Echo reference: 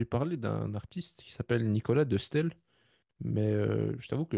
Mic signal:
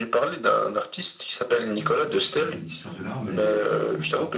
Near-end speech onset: 1.7 s

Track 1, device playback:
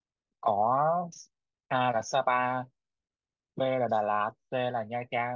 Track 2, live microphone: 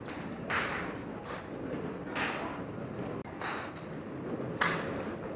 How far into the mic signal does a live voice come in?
none

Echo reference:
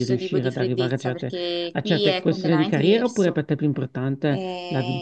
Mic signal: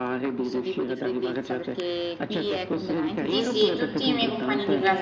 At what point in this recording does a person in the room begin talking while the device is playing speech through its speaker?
3.2 s

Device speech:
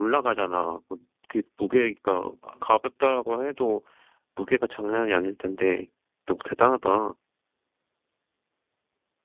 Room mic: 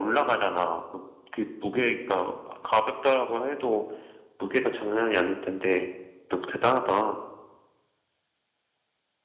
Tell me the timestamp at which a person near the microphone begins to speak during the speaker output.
none

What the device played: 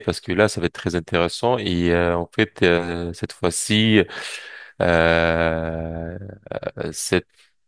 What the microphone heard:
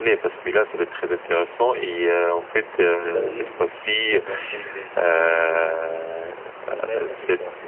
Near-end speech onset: 2.9 s

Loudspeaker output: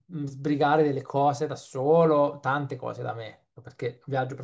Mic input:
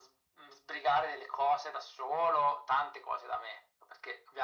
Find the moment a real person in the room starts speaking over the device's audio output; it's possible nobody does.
none

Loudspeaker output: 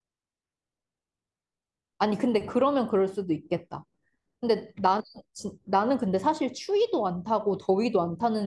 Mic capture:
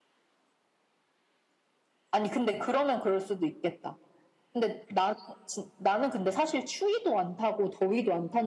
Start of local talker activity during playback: none

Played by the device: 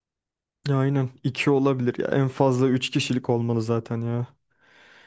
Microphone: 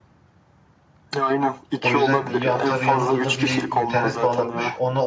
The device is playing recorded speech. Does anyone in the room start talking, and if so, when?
1.8 s

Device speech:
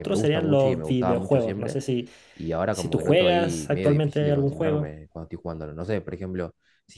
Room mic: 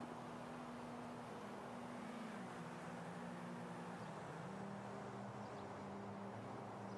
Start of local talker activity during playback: none

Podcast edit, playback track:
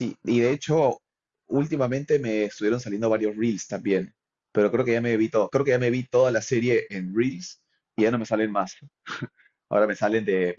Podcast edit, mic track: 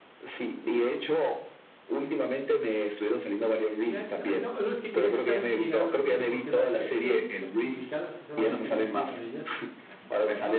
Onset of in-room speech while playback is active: 3.8 s

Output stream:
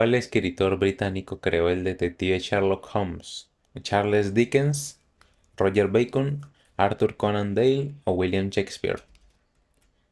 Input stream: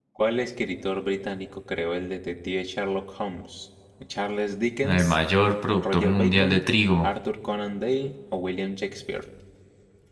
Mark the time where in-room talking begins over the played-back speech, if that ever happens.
4.8 s

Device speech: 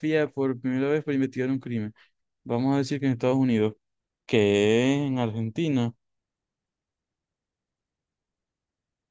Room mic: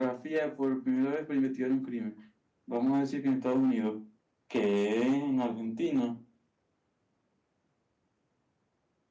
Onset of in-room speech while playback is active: none

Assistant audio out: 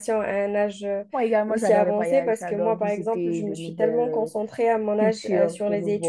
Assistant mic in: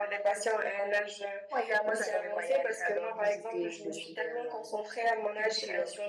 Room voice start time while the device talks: none

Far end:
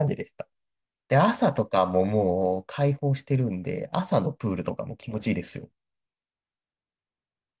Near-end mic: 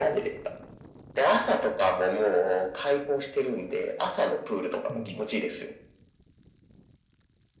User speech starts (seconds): 4.9 s

